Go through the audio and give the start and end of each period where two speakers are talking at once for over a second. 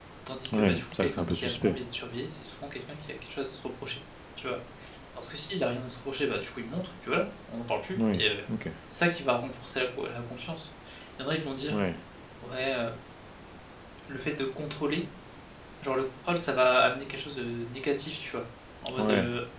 0.5-1.8

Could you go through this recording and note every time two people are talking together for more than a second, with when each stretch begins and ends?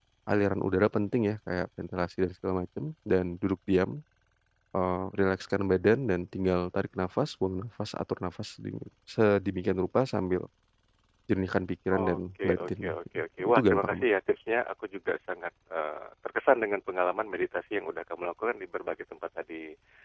11.9-14.0

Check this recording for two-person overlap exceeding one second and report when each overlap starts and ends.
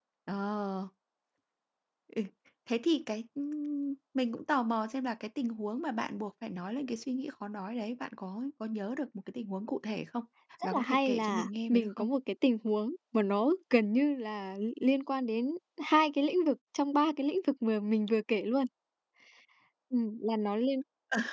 10.6-12.1

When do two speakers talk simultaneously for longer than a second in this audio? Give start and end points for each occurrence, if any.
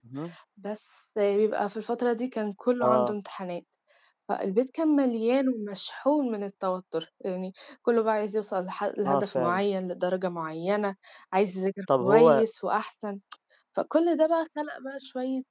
none

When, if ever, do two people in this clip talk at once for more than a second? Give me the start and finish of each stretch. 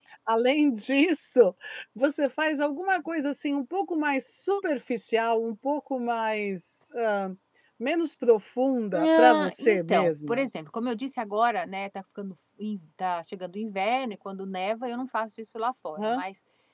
8.9-10.4

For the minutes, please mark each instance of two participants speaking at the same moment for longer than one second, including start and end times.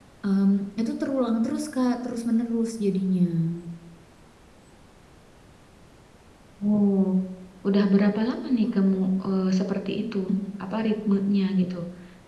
none

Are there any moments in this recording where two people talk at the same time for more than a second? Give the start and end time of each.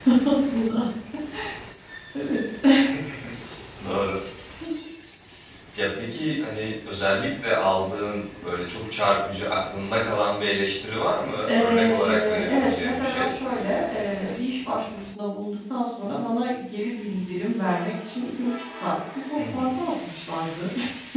11.5-13.3

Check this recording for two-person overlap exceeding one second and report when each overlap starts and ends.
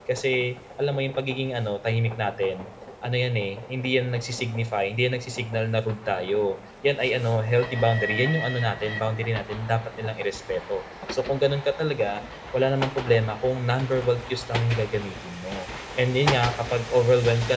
none

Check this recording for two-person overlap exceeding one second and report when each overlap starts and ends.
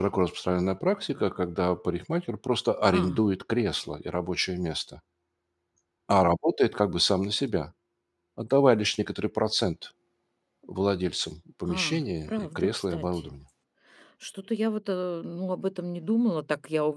11.7-13.3

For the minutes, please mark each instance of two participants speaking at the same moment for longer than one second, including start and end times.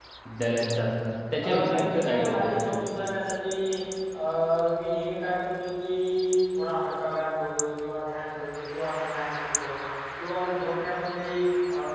1.4-2.7

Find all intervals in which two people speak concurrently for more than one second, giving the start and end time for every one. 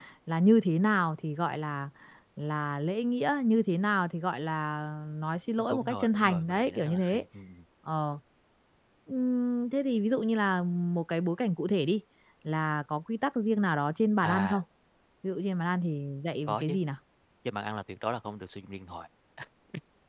5.6-7.2

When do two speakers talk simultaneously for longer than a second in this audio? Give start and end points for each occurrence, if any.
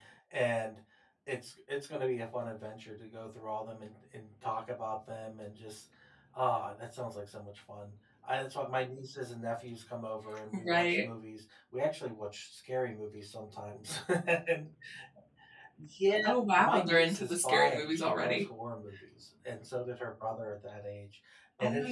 16.6-18.4

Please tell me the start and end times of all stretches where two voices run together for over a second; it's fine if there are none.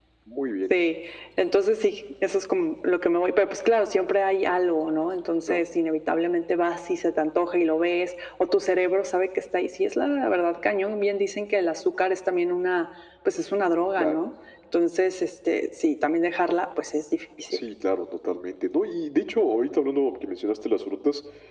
none

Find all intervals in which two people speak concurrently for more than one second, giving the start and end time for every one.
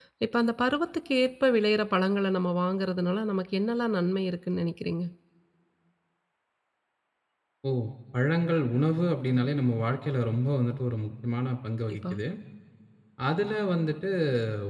none

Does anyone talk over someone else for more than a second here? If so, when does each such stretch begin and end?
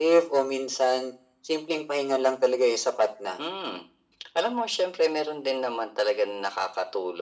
none

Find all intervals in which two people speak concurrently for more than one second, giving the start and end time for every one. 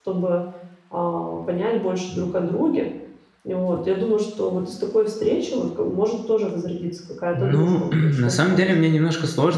7.3-8.7

